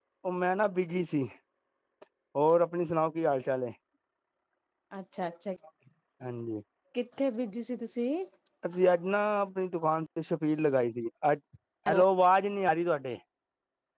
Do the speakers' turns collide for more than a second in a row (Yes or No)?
No